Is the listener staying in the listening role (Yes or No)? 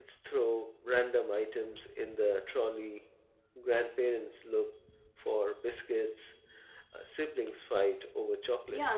No